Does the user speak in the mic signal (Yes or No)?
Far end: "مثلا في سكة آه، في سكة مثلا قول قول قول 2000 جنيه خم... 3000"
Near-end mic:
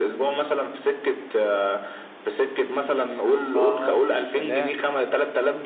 Yes